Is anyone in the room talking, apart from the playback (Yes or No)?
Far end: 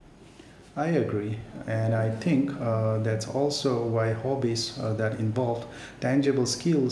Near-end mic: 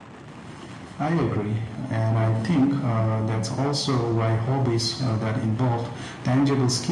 No